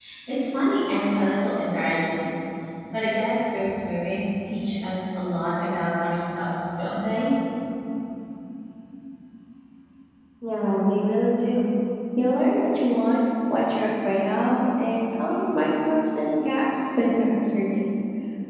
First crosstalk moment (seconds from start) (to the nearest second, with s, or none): none